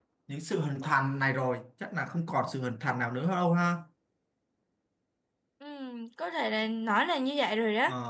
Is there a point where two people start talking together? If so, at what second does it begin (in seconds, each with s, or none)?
none